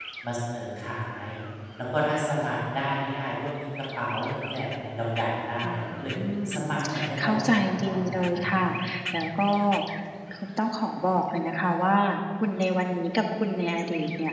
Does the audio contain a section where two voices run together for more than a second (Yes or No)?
Yes